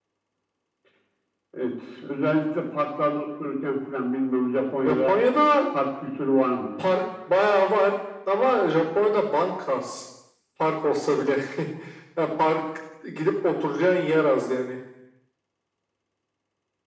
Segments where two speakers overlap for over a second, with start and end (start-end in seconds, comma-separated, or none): none